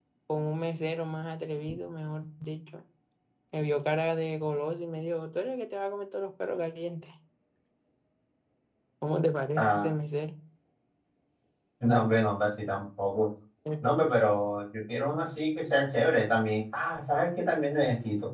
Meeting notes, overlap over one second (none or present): none